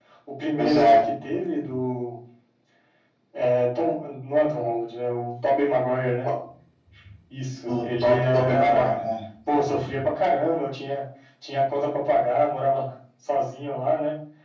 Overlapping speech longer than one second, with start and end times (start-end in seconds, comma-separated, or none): 7.7-8.9